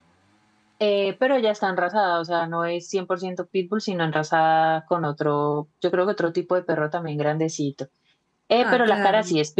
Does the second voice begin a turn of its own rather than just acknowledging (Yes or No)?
No